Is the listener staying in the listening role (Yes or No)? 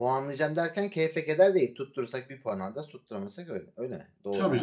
No